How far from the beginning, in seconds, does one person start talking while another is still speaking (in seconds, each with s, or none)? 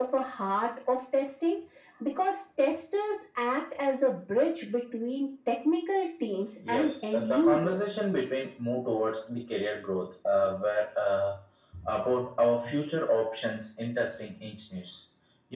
6.6 s